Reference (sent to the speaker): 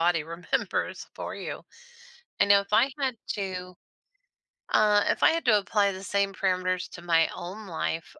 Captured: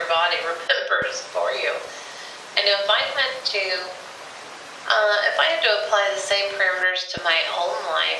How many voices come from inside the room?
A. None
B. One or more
A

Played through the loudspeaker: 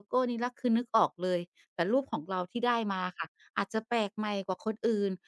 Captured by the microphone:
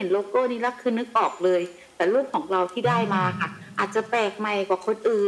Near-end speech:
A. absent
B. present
B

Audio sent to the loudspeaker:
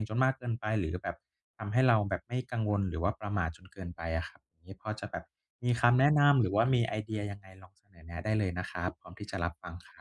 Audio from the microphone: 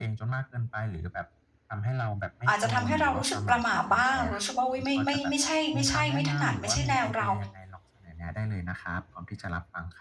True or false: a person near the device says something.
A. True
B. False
A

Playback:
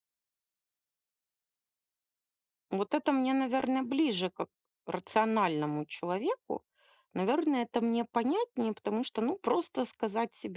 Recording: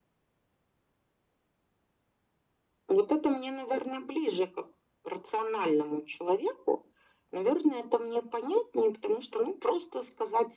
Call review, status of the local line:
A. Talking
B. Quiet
B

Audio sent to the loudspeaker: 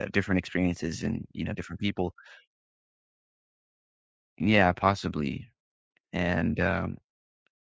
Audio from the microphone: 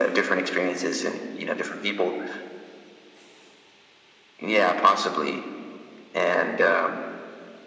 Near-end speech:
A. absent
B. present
A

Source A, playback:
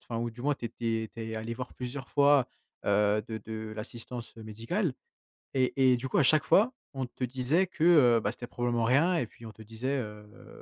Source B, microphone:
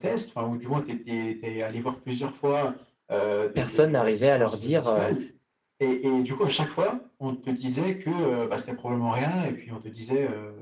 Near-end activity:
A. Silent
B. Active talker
B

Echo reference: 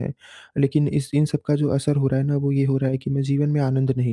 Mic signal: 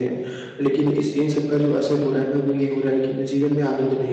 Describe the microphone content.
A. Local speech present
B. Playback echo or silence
B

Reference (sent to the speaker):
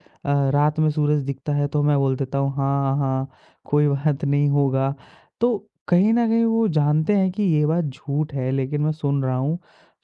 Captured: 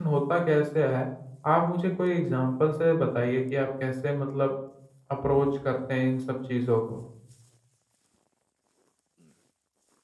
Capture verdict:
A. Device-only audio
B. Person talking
B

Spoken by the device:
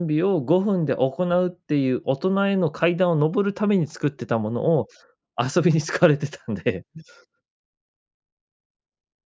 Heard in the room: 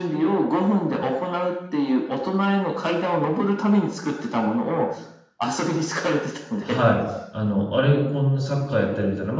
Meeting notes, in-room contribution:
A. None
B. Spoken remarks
B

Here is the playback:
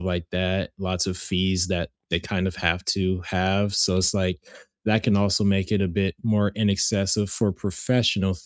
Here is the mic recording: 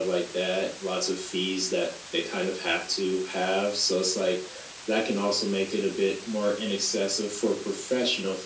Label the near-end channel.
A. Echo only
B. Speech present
A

